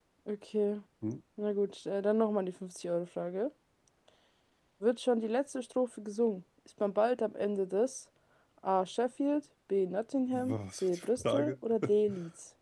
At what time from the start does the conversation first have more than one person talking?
10 s

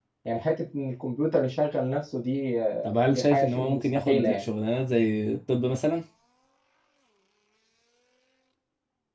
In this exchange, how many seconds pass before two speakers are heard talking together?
3 s

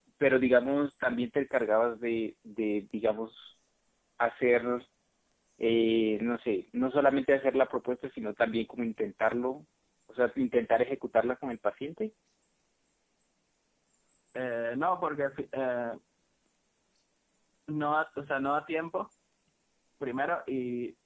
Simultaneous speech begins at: none

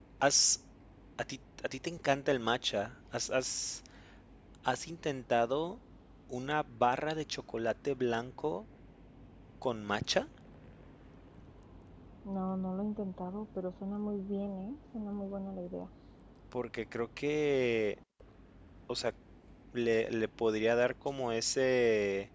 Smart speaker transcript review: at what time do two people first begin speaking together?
none

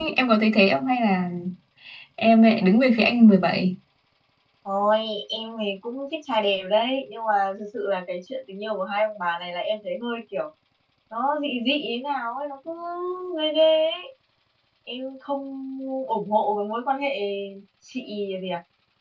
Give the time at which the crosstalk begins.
none

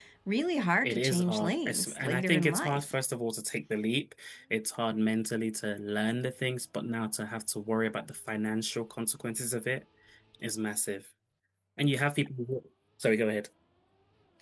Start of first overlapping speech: 1 s

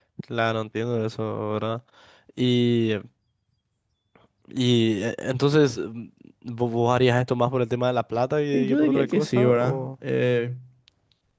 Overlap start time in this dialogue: 9 s

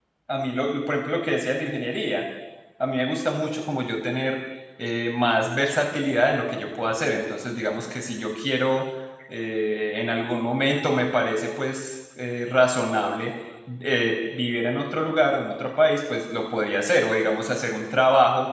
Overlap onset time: none

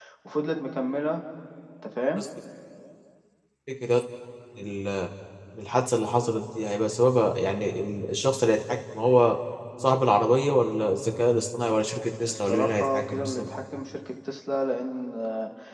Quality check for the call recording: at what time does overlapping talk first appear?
12 s

